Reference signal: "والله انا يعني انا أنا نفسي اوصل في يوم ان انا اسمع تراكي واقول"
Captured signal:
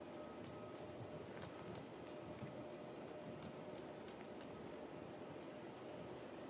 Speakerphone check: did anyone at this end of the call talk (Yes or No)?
No